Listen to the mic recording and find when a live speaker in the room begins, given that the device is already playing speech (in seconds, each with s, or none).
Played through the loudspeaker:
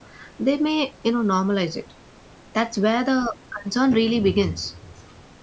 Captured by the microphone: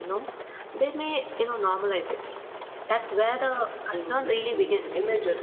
3.9 s